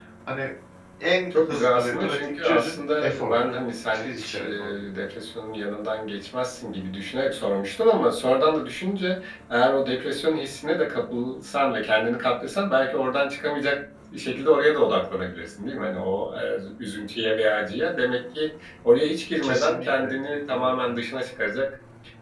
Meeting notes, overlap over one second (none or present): present